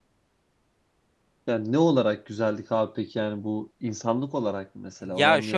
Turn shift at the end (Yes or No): Yes